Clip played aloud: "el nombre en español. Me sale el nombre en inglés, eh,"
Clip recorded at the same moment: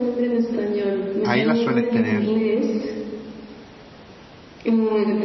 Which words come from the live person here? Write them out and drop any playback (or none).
ahí la suelen tener,